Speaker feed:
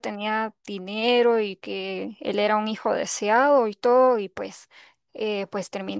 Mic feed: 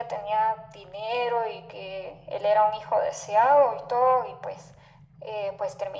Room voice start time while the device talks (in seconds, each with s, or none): none